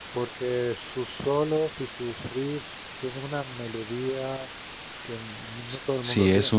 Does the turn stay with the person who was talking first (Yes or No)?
No